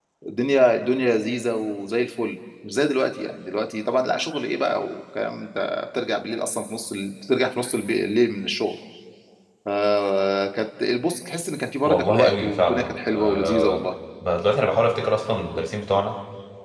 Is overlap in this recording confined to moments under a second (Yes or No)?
No